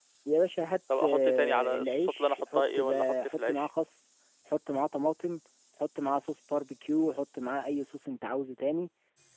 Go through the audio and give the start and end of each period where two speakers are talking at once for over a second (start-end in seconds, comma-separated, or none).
1.0-3.7